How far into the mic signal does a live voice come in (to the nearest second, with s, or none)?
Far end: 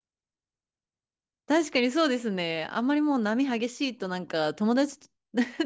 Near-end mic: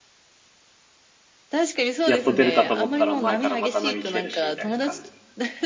2 s